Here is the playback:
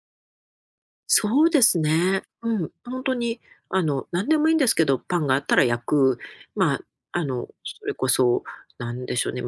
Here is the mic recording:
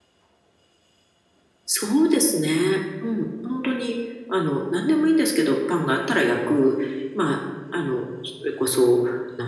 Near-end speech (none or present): none